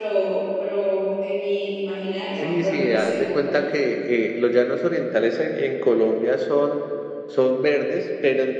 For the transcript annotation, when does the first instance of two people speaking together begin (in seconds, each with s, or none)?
2.4 s